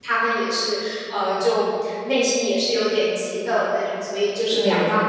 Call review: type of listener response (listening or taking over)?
listening